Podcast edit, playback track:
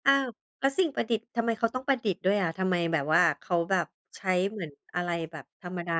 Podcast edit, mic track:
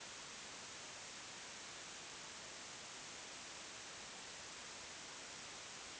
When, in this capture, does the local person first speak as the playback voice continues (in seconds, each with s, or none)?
none